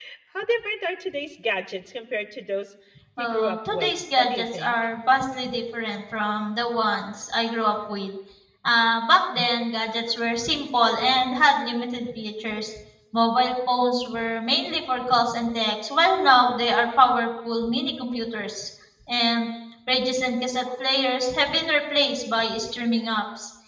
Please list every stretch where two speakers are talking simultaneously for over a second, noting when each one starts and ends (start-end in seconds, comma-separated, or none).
3.2-4.7